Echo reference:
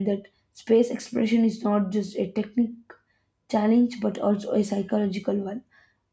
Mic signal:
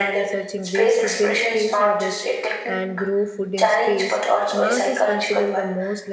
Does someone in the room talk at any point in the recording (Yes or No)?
Yes